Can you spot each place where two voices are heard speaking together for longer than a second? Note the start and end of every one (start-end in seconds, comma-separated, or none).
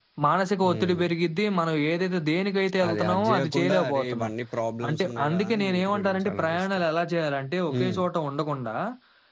2.9-4.3, 4.9-6.8